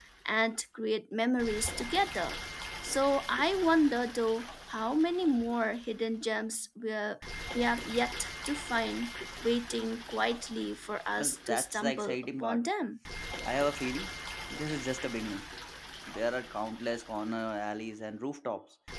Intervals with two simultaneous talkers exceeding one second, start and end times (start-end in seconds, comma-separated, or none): 11.2-12.6